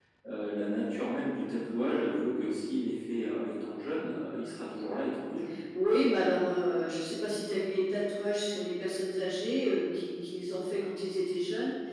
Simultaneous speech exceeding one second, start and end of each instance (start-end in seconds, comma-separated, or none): none